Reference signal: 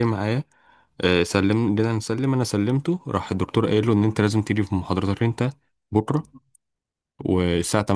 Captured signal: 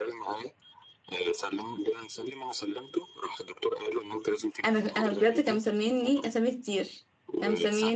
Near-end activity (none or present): present